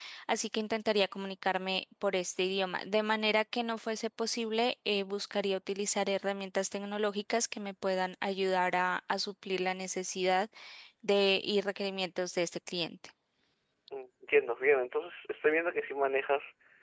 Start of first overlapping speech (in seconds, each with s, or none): none